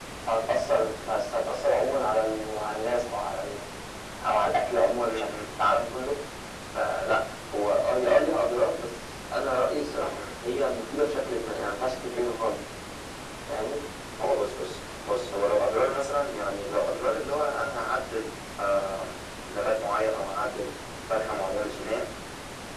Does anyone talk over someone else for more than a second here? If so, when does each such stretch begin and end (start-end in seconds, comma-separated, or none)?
none